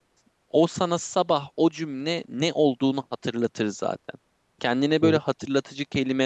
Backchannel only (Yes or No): Yes